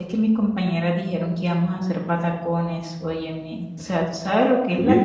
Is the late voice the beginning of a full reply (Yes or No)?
Yes